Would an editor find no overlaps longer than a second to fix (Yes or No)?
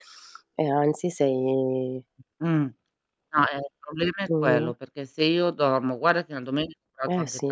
Yes